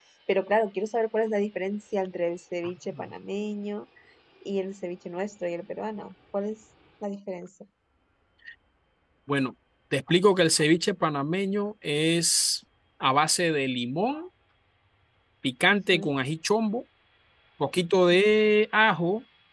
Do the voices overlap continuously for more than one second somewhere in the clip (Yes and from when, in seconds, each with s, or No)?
No